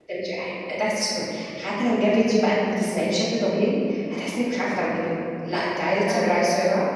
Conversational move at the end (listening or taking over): listening